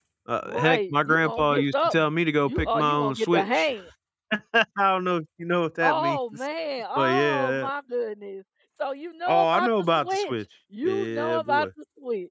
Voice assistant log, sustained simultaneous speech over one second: present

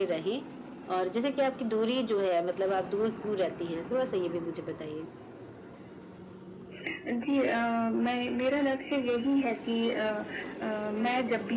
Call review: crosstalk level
none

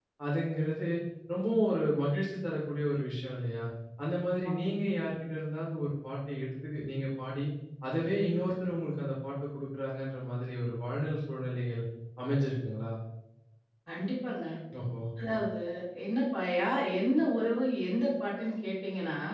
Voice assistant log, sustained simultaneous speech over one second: none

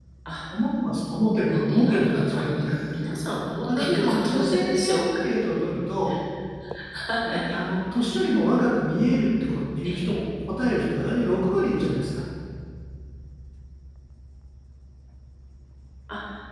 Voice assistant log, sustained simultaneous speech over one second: present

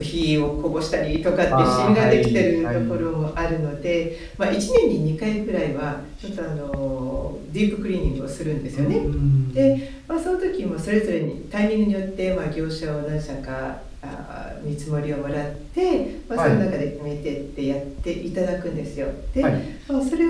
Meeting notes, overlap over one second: present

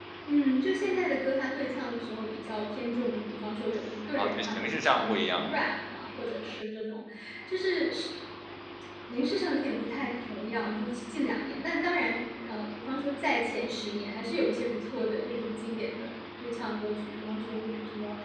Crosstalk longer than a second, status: present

